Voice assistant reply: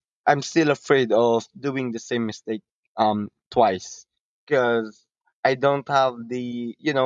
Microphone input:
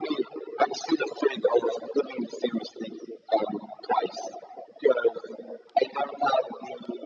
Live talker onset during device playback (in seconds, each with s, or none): none